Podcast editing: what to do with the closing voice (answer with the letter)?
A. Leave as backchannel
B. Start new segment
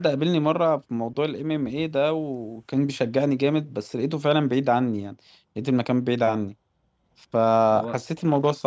A